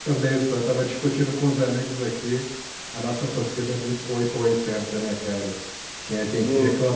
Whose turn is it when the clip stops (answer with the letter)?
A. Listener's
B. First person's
B